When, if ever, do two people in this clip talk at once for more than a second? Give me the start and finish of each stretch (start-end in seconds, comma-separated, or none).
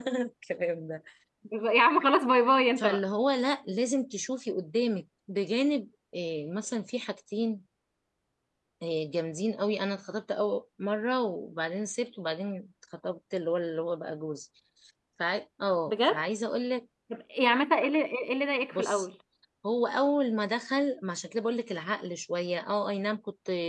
none